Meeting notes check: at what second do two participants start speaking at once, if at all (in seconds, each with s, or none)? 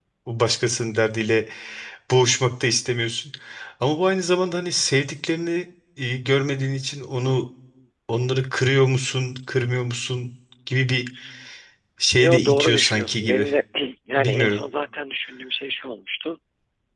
12.2 s